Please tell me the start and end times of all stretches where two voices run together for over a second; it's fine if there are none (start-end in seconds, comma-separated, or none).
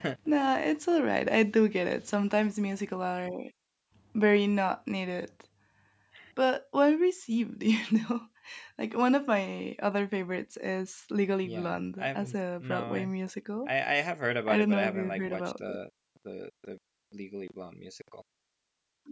11.4-13.1, 14.5-15.8